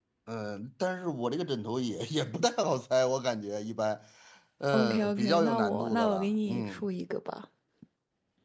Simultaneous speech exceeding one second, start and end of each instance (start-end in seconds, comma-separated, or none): 4.7-6.9